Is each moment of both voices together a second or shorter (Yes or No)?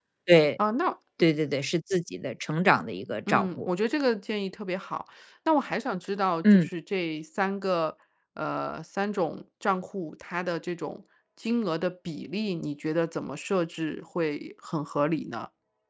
Yes